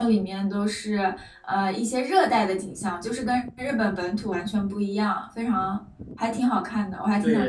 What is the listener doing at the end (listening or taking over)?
taking over